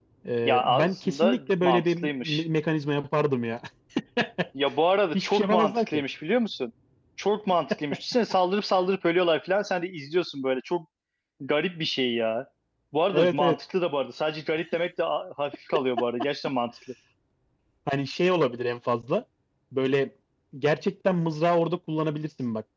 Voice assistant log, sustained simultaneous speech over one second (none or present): present